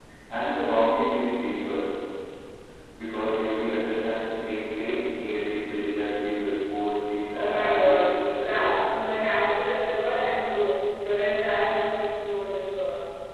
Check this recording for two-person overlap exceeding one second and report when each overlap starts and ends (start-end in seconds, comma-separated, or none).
7.3-8.7